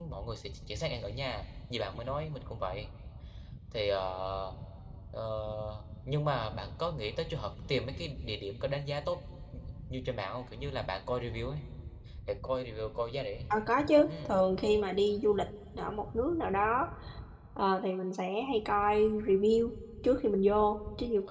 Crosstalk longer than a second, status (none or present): none